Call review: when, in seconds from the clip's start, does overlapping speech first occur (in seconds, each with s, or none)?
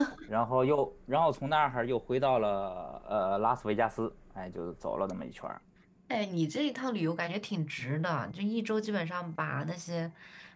none